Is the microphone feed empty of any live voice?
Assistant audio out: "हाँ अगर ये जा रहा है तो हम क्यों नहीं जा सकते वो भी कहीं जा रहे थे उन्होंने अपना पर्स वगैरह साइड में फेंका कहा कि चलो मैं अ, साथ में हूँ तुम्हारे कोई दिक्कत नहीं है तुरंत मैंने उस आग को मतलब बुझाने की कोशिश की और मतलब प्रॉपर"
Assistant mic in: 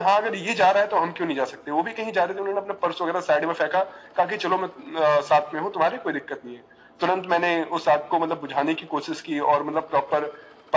Yes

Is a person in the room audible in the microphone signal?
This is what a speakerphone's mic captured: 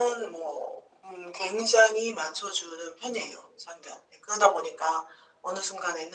No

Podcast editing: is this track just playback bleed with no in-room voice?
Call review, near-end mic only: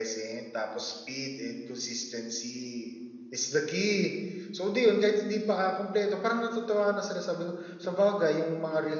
Yes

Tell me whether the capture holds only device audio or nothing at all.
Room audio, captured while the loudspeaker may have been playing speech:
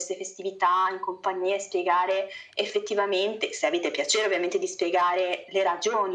Yes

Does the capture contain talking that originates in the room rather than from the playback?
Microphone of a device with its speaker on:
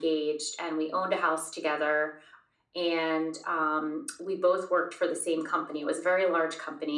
No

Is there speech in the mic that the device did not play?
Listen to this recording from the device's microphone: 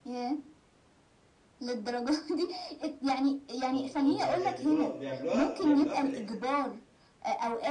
Yes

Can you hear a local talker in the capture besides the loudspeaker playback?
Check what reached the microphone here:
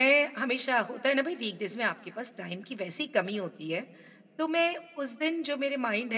No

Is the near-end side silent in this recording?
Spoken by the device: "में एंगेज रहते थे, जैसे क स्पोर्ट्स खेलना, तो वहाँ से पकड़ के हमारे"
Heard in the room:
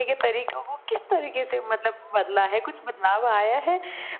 No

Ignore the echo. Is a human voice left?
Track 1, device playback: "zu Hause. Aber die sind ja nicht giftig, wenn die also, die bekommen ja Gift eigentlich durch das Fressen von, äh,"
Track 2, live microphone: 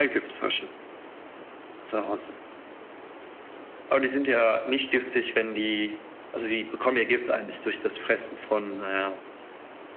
No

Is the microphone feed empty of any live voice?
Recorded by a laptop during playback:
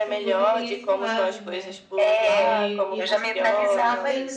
No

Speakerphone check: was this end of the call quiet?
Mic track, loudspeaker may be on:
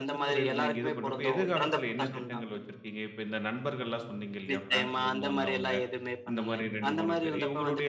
No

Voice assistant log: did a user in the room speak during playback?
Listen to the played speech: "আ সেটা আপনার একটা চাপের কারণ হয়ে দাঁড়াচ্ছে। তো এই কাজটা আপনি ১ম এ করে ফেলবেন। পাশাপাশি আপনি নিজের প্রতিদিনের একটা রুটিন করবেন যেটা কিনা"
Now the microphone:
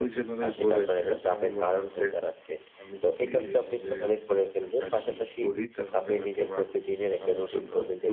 Yes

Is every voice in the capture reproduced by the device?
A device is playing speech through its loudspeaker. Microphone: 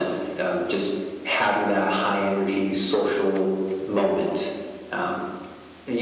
Yes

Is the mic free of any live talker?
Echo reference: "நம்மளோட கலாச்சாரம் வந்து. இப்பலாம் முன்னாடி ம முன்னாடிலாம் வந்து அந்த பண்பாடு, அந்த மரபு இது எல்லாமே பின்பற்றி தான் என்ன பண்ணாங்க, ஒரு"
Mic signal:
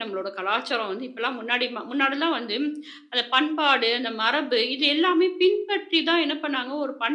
Yes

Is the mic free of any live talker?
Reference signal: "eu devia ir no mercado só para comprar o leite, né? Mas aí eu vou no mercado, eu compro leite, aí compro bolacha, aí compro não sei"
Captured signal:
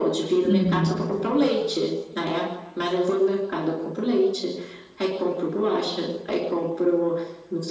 No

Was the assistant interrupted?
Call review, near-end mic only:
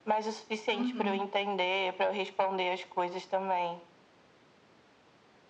Yes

